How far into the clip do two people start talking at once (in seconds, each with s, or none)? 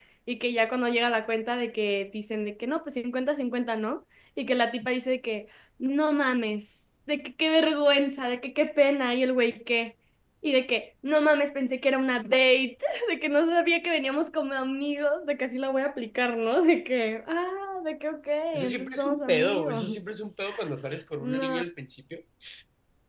18.5 s